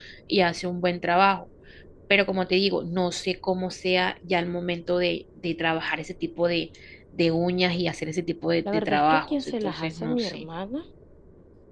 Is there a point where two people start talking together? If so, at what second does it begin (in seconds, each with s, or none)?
8.7 s